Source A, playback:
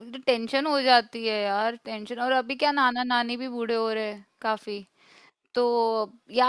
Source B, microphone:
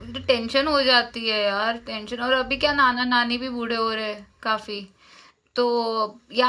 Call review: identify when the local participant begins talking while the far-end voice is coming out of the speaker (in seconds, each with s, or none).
none